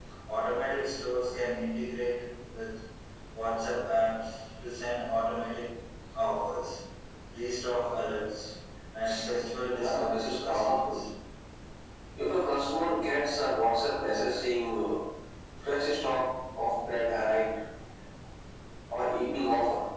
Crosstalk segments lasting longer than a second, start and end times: 9.7-11.0

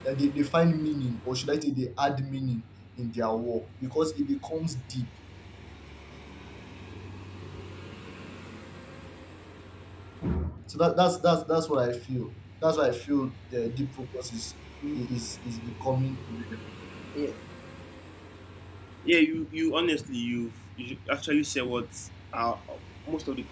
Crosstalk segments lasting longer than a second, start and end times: none

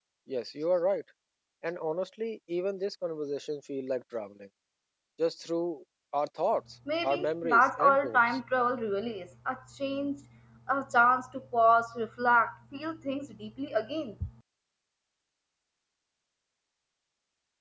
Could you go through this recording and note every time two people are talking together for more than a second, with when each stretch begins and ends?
7.0-8.4

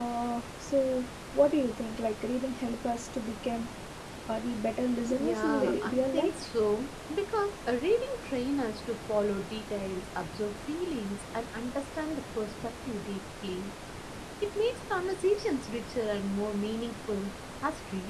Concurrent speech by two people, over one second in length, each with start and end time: 5.2-6.6

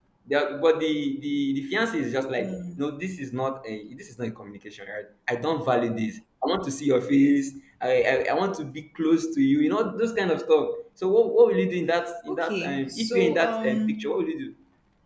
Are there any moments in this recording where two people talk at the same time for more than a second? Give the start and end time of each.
12.3-14.2

